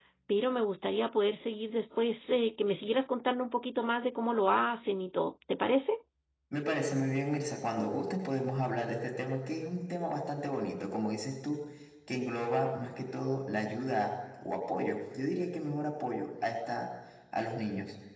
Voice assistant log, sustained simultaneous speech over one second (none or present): none